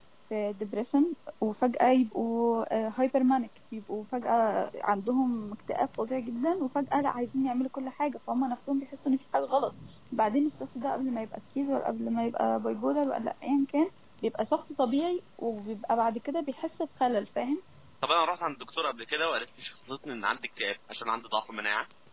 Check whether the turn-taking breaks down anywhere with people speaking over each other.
No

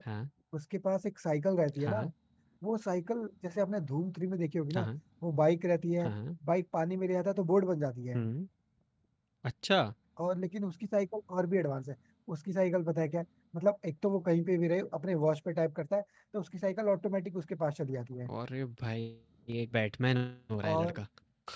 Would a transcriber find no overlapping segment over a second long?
Yes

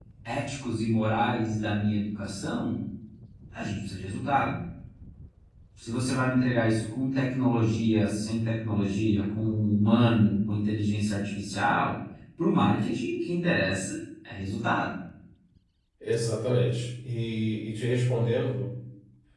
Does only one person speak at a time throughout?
Yes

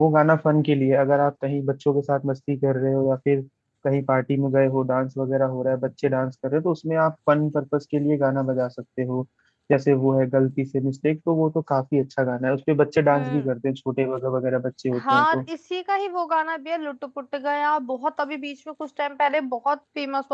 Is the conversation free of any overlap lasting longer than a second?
Yes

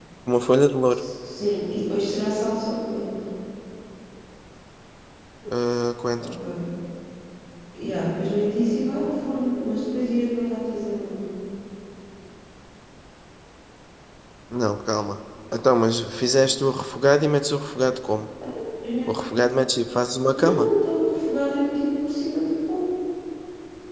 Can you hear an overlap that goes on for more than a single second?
No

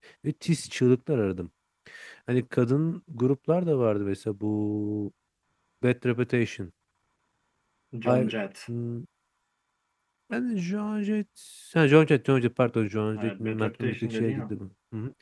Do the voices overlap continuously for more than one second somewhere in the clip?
Yes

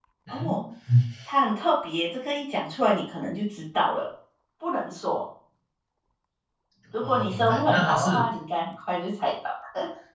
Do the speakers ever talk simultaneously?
Yes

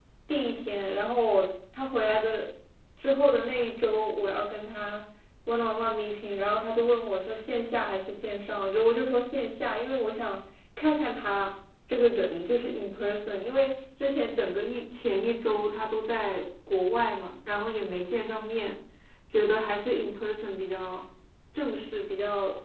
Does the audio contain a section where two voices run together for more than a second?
No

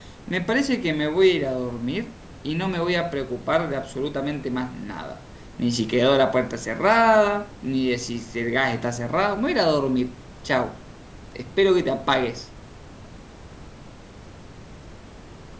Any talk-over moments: No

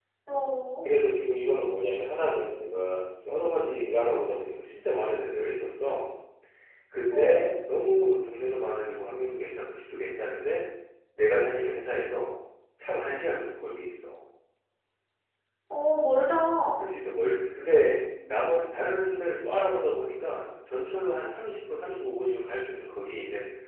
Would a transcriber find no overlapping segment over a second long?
Yes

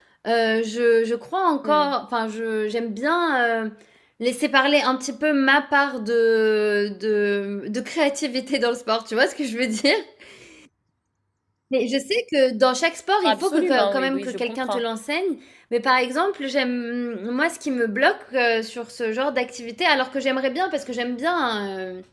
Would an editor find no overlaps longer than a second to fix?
No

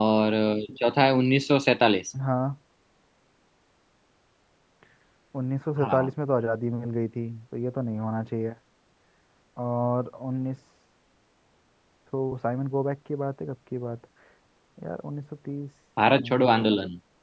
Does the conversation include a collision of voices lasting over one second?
No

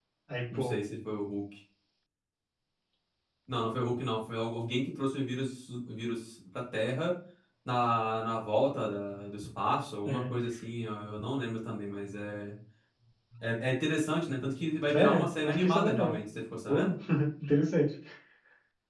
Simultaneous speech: Yes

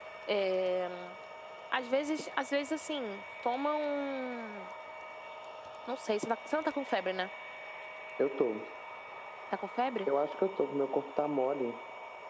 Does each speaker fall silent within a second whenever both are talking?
Yes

